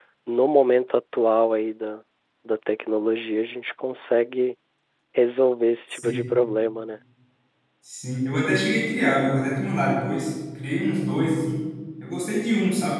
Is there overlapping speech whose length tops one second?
No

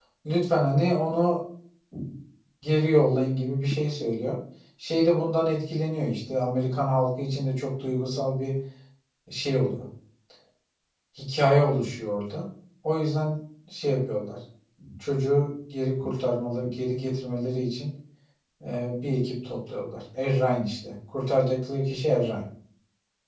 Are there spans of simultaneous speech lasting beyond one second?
No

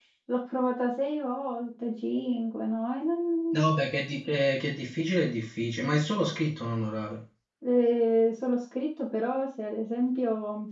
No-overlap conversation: Yes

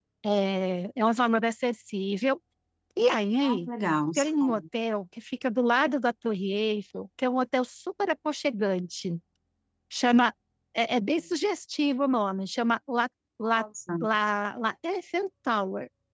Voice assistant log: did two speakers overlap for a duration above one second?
No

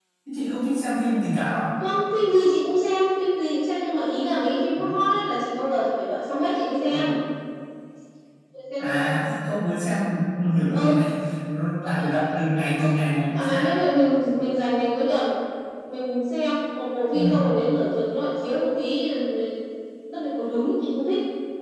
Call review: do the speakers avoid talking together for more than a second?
Yes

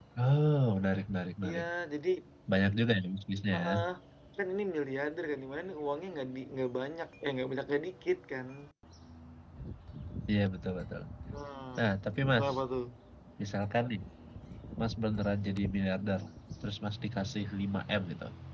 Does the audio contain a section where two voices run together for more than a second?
No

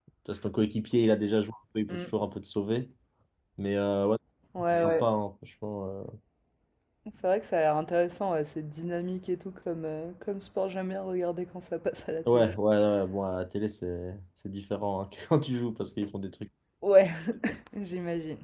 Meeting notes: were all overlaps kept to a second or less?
Yes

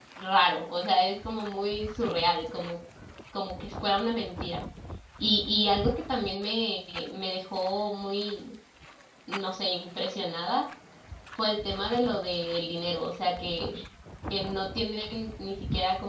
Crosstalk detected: No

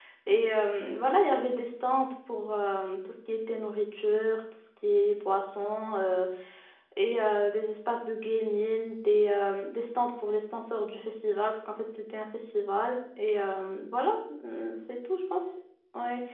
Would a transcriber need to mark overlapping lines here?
No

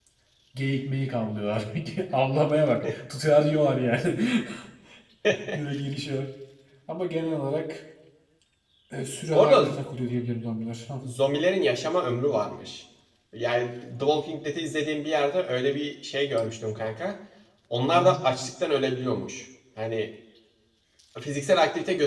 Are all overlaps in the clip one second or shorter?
Yes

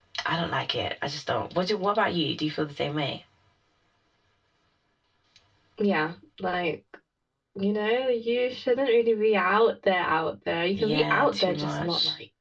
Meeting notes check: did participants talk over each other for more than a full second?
Yes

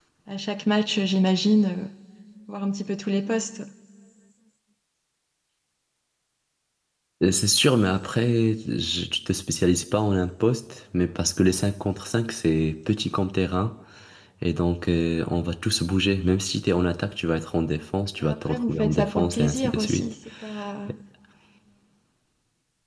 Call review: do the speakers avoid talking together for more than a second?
No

